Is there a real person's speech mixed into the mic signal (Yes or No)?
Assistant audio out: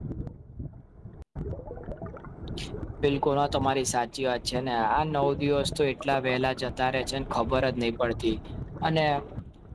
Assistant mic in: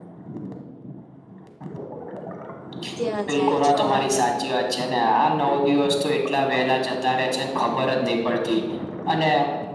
Yes